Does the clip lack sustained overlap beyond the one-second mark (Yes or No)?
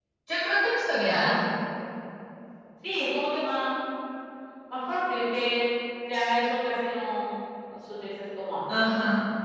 Yes